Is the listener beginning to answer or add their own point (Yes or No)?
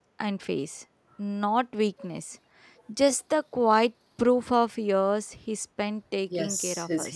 Yes